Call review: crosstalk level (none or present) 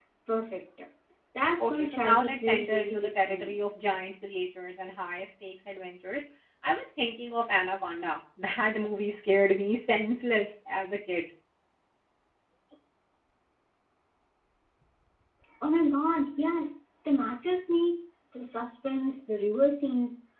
present